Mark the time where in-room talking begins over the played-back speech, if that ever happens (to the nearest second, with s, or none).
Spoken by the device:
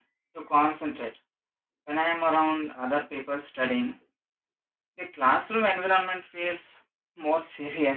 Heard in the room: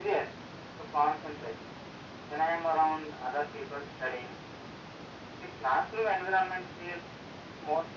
none